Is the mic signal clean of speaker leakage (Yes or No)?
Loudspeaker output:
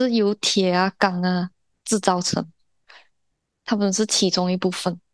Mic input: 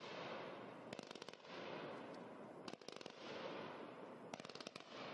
Yes